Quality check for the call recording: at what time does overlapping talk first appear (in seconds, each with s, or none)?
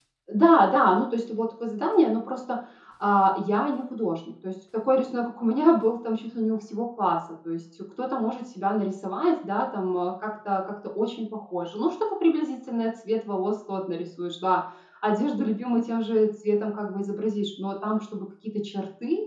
none